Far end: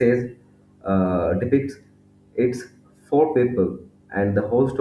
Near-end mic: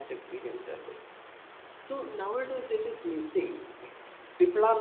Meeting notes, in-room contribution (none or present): present